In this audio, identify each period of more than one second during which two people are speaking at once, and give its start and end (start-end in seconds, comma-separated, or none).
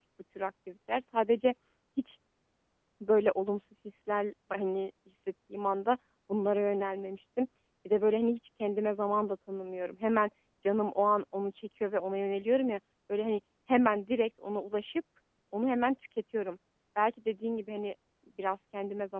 none